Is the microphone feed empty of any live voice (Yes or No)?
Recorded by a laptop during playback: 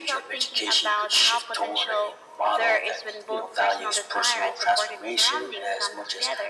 Yes